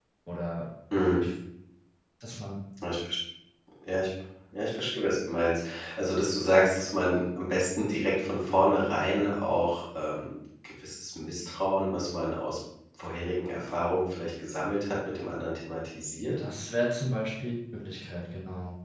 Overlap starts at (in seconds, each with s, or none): none